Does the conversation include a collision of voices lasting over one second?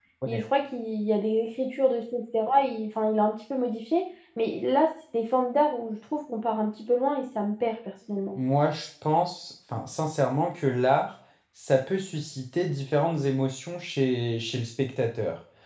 No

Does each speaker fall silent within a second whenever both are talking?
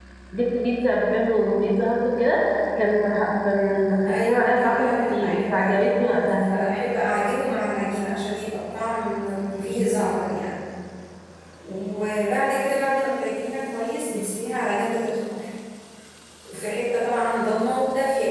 No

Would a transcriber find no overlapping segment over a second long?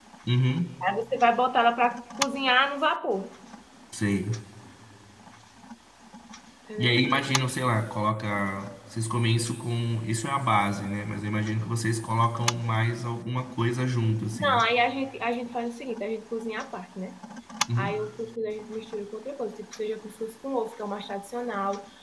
Yes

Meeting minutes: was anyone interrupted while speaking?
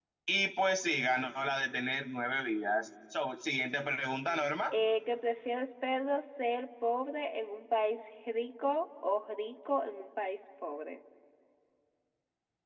No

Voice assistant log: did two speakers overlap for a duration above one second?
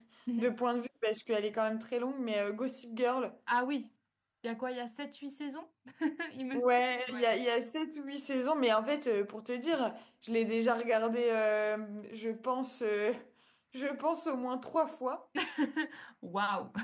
No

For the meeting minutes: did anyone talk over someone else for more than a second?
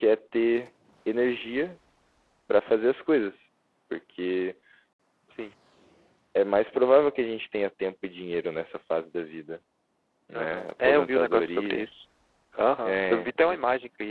Yes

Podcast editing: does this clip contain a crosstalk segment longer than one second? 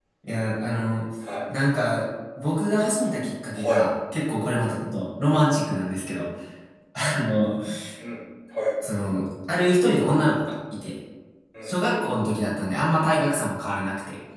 No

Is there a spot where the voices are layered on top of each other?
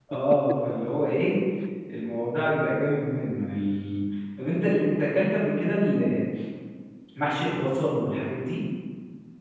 No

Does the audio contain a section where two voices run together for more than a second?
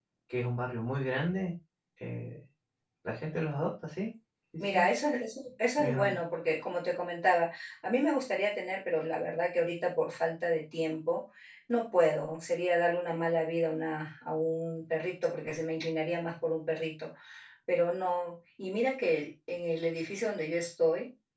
No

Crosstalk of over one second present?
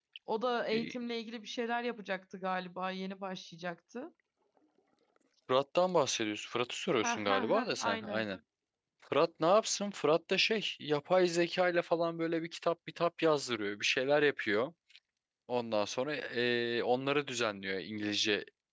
Yes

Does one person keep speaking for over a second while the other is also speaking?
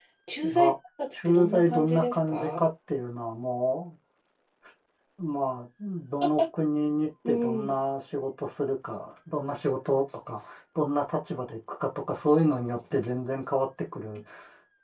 Yes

